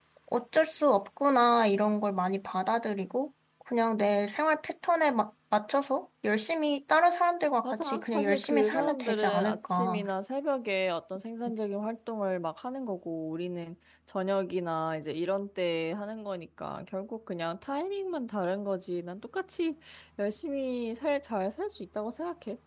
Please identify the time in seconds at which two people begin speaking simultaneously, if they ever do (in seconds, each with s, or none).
7.6 s